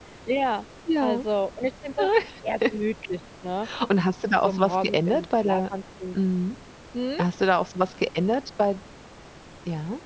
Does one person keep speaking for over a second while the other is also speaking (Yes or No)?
Yes